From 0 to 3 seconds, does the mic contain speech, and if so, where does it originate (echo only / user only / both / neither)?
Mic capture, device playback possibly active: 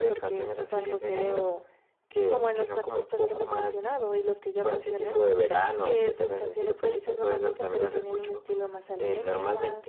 echo only